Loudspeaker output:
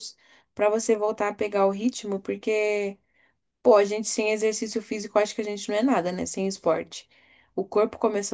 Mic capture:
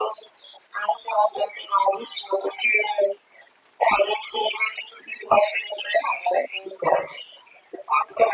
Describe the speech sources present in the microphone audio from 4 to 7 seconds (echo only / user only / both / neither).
echo only